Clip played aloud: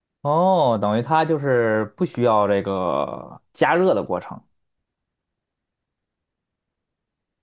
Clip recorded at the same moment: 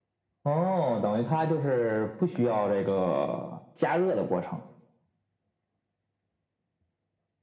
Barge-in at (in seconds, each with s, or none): none